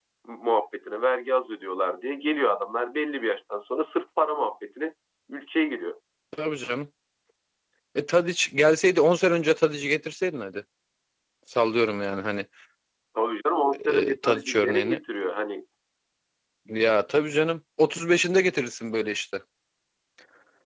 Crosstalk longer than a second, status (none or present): present